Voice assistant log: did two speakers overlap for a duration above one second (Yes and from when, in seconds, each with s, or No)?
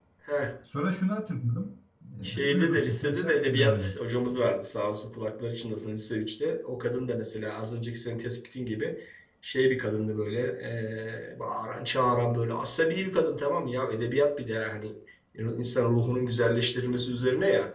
Yes, from 2.2 s